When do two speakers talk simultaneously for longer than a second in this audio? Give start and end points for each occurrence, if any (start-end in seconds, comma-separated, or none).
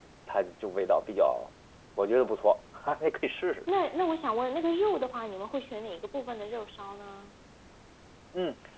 none